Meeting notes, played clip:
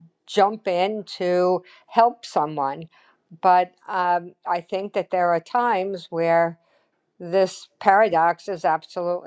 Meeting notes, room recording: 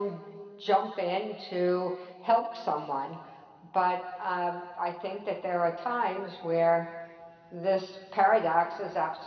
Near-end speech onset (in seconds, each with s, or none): none